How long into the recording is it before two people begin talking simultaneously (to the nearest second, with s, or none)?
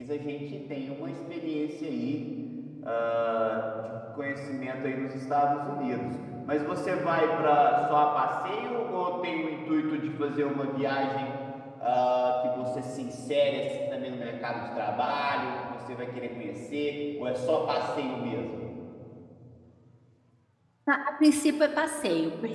none